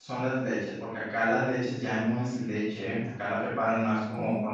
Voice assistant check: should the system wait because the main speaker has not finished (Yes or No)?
Yes